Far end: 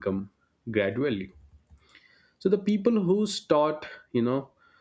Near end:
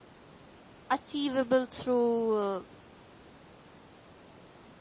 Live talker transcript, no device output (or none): achievable through uh,